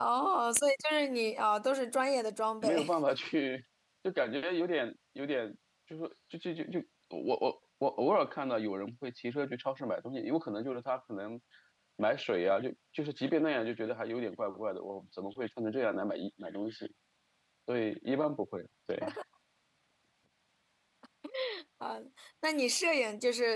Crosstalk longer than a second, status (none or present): none